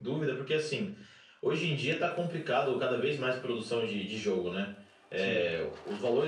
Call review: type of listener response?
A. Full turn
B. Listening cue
B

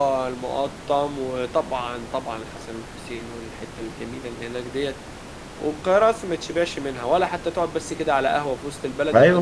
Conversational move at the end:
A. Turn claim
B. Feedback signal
A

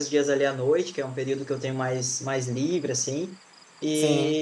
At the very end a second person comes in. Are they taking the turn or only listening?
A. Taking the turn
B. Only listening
B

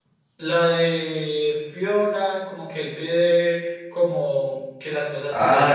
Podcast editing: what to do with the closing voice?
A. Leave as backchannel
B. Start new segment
B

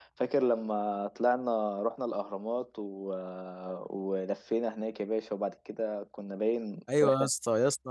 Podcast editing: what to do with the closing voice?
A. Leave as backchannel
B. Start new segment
B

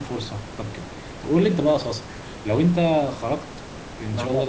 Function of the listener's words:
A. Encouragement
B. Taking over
A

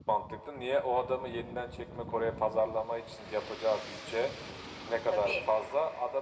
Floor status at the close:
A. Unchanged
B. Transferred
A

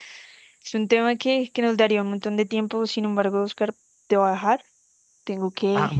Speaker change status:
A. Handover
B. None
B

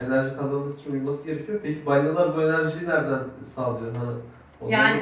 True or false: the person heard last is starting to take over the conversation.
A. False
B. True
B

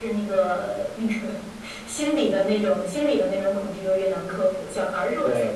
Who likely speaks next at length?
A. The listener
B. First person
A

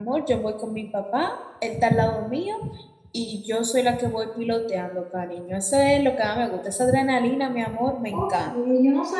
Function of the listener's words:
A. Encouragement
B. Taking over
B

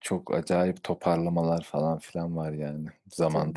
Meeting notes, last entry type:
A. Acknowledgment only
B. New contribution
B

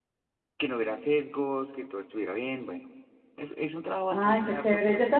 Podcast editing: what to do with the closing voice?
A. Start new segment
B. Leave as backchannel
A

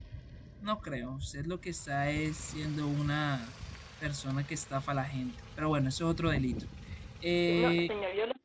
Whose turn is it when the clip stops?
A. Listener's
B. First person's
A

